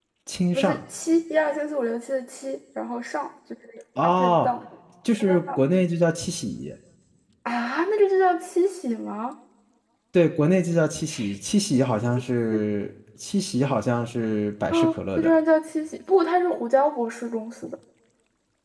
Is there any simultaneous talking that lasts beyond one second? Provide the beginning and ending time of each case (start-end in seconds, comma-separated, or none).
none